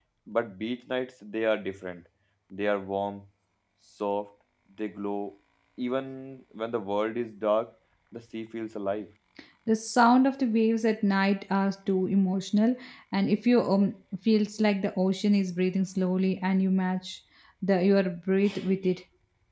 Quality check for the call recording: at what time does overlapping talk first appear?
none

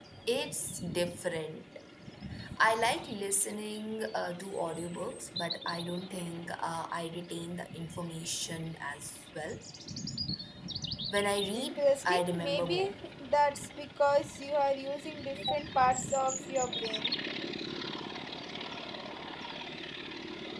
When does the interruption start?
11.5 s

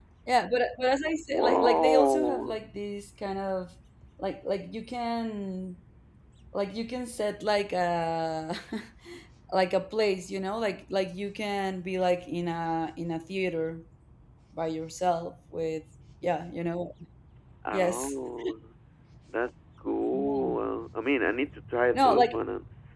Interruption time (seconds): 1.3 s

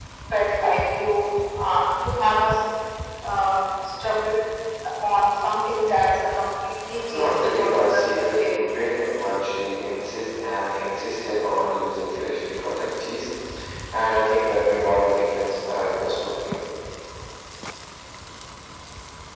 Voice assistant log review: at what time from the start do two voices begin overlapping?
7.1 s

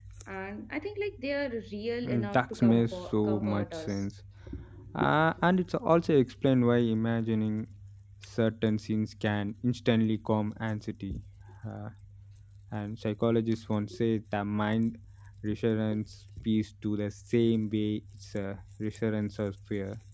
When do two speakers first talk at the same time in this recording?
2.0 s

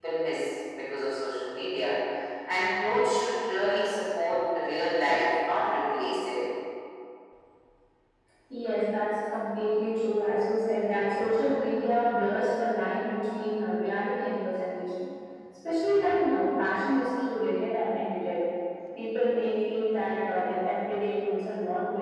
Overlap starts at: none

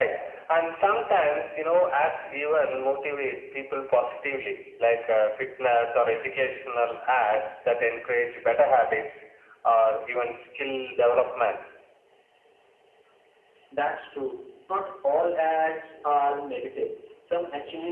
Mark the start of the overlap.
none

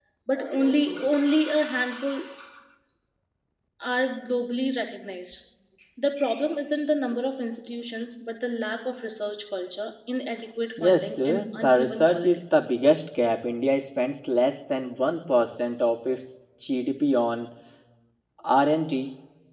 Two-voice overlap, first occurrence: 10.8 s

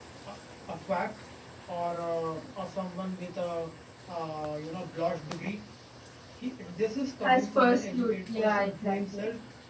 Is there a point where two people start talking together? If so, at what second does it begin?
7.2 s

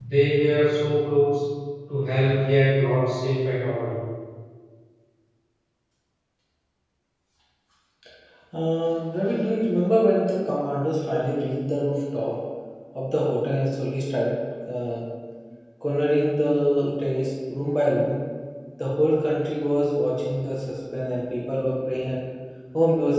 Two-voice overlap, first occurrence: none

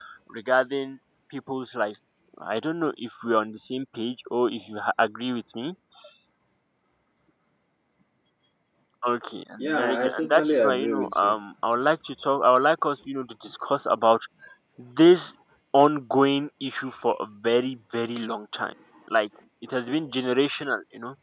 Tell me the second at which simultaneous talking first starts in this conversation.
9.6 s

